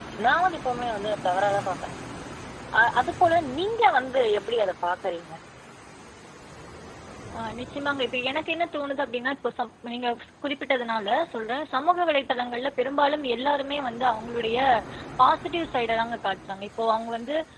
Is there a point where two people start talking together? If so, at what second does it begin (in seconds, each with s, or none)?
none